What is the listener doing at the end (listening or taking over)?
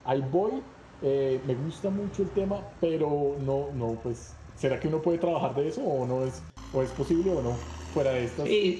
taking over